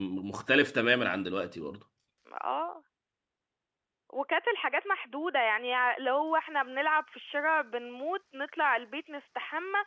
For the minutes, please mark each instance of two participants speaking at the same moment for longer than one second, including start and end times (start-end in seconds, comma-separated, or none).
none